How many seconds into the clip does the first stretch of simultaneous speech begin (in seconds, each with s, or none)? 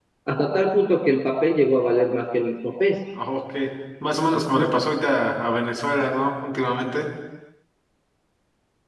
none